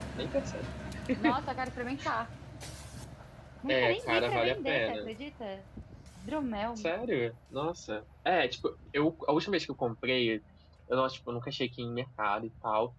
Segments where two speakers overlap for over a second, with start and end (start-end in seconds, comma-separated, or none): 3.7-5.1